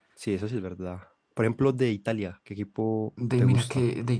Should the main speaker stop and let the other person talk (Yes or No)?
Yes